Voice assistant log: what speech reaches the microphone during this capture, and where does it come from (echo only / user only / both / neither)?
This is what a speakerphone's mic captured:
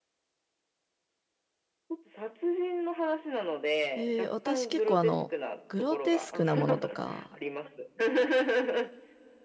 both